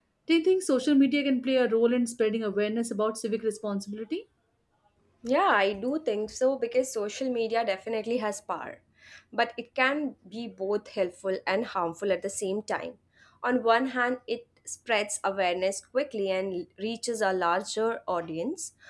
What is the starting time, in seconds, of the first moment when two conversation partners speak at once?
none

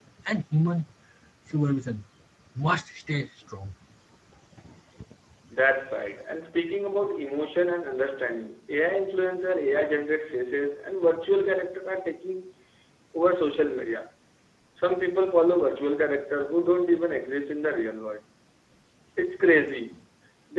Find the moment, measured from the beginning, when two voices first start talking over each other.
none

